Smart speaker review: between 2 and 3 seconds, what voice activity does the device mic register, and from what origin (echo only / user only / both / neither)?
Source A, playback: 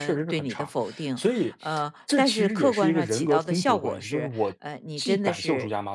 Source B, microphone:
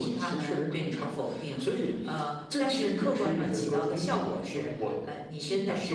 echo only